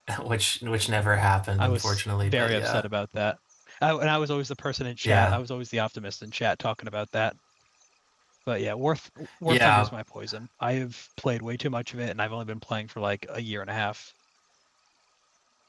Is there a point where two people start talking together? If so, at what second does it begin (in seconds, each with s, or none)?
1.6 s